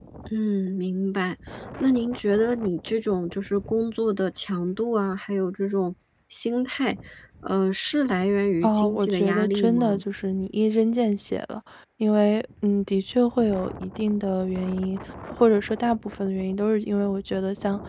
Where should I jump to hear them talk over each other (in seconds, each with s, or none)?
8.6 s